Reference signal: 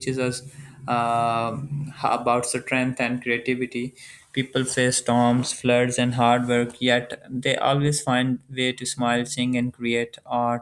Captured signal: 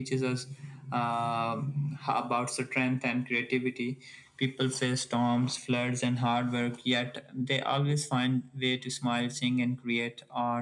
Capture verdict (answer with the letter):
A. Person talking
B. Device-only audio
B